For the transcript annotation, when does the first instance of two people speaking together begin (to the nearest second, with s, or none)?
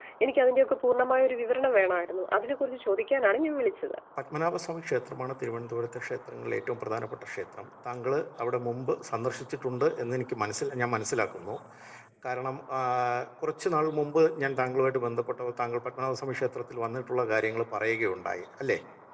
none